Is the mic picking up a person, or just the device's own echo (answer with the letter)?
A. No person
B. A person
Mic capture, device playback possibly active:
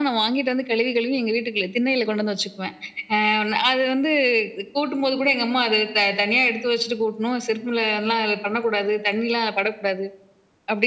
A